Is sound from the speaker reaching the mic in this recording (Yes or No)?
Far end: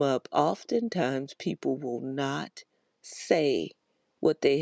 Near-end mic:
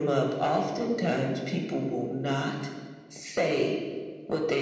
Yes